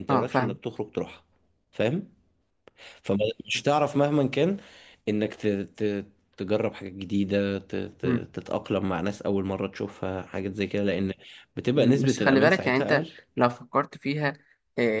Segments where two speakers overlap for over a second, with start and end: 11.8-13.0

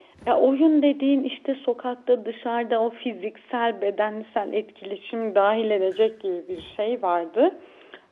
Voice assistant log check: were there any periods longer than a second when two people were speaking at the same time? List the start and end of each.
none

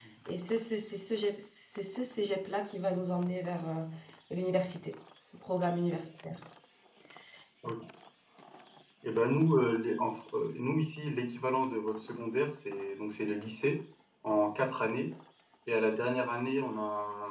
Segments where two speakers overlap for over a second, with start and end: none

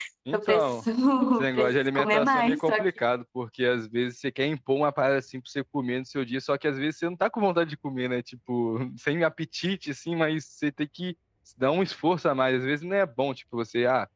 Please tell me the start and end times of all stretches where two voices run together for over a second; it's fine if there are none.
1.4-2.9

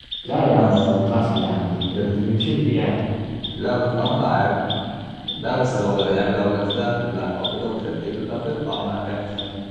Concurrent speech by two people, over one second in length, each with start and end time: none

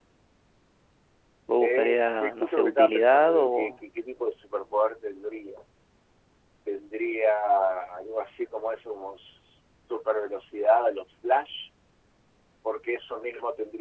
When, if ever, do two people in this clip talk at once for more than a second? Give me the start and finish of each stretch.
1.6-3.8

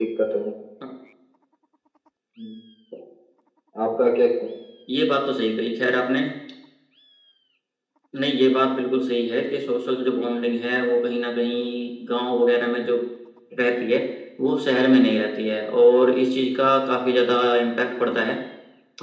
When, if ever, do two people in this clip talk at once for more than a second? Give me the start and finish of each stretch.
none

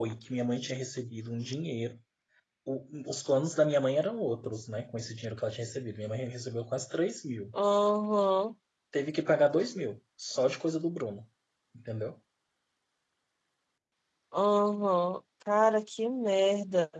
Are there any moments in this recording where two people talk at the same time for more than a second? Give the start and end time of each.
none

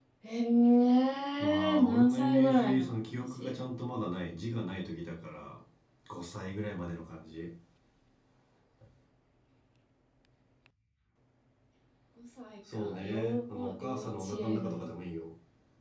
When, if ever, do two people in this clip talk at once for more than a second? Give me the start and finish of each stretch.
1.4-3.6, 12.7-14.9

